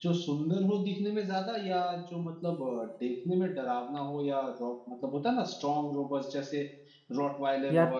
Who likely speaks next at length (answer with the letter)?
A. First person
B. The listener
A